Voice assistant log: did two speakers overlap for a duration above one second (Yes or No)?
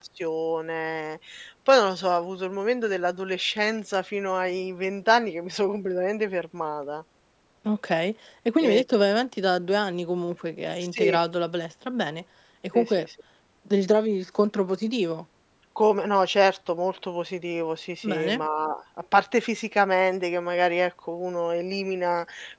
No